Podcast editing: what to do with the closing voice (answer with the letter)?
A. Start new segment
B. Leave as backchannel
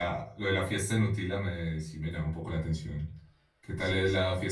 B